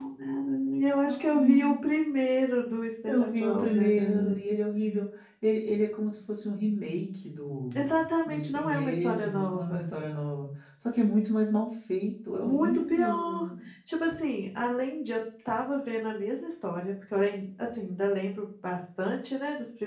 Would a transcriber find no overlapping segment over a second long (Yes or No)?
No